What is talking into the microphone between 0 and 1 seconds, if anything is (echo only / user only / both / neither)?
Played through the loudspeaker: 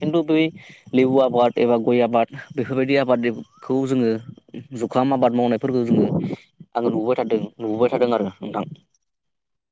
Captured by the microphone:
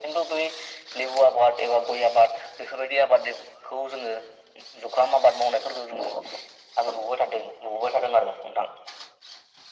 echo only